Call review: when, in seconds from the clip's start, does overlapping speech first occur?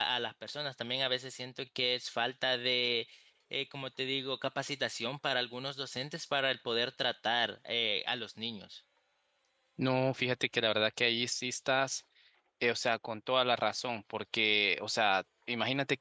none

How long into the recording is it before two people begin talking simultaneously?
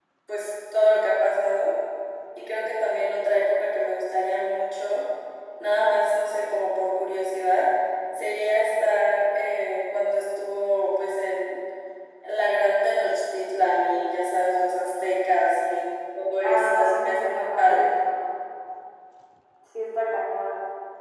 16 s

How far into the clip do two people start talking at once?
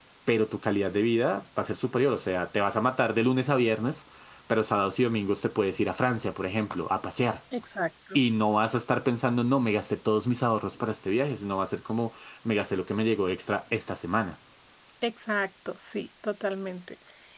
none

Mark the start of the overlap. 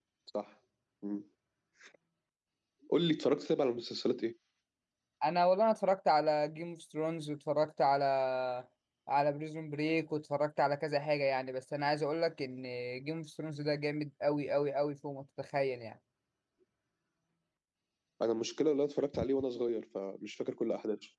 none

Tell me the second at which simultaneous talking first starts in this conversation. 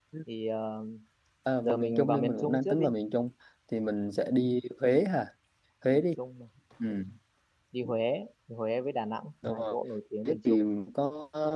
2 s

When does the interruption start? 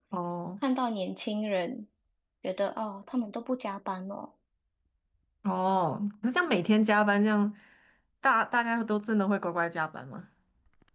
none

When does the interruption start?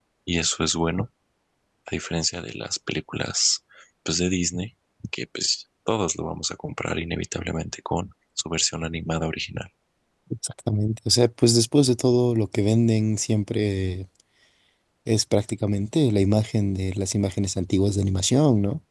none

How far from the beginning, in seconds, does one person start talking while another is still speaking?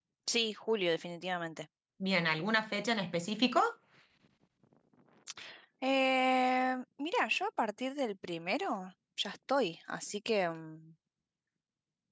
none

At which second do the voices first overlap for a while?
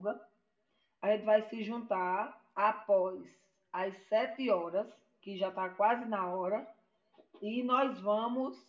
none

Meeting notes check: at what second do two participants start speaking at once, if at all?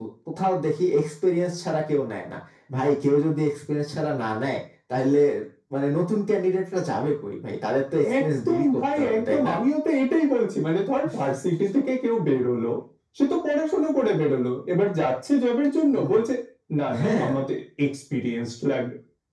8 s

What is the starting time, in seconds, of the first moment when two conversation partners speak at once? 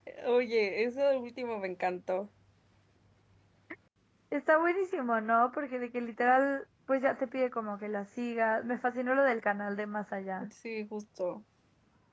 none

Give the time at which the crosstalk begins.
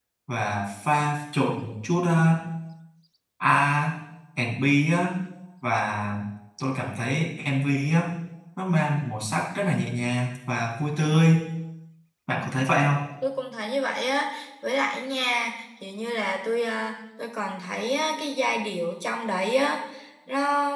none

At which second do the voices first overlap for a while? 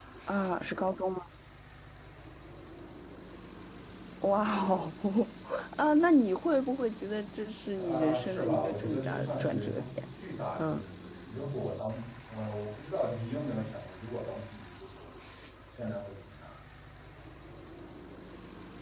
8 s

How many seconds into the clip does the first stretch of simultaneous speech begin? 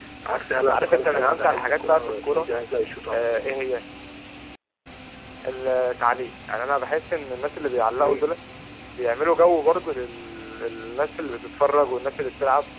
1 s

